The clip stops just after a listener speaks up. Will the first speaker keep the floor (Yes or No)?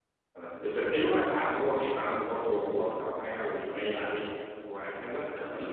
No